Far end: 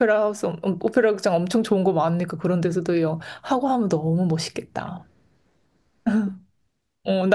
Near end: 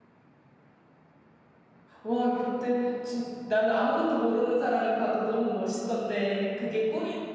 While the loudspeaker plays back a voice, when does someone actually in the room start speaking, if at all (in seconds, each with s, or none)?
2.0 s